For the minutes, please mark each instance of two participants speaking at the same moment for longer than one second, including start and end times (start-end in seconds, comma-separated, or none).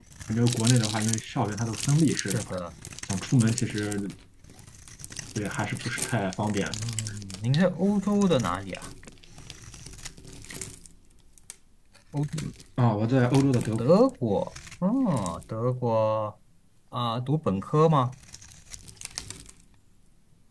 none